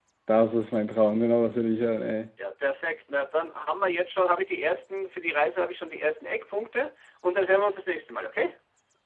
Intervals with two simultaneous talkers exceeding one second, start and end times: none

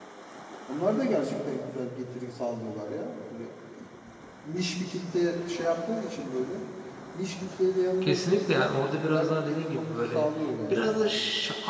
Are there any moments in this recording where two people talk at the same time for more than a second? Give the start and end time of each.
8.0-10.3

